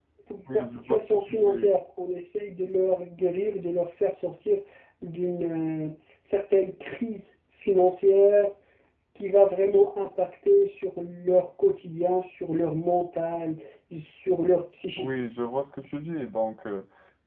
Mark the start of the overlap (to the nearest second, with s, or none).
1 s